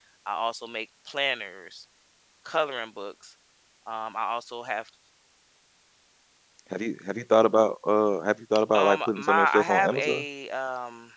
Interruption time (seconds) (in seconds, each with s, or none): 8.7 s